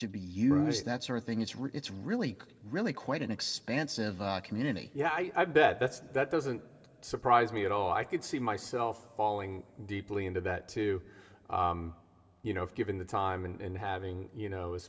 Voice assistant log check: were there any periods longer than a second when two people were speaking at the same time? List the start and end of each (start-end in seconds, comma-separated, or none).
none